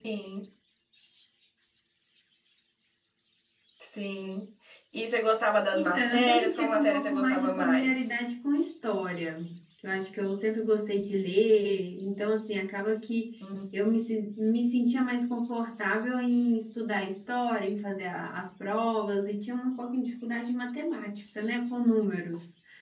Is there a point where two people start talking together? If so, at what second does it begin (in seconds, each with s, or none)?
5.7 s